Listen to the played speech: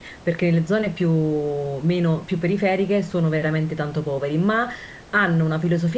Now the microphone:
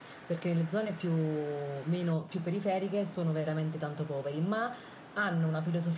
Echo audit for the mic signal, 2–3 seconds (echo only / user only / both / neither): echo only